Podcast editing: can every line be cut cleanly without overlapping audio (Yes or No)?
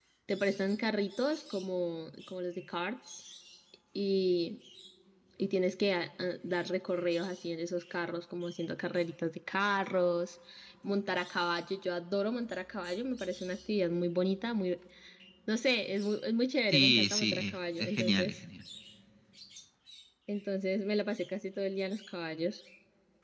No